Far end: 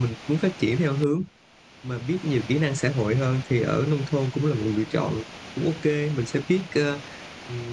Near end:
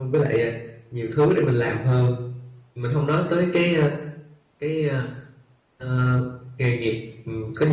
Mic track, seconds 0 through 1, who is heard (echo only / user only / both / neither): user only